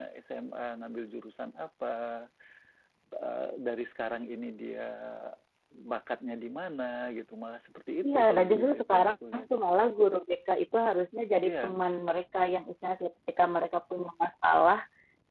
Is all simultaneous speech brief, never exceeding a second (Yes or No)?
No